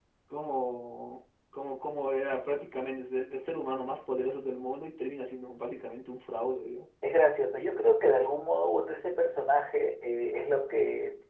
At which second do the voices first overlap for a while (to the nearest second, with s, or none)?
none